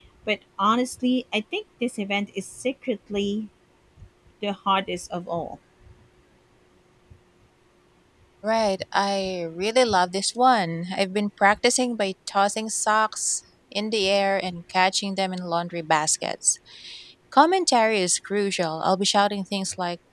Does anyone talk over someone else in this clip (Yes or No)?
No